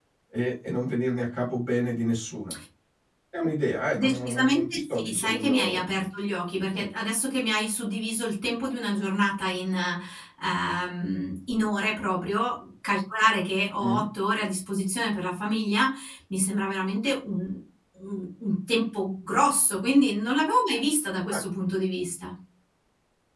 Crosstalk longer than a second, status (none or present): present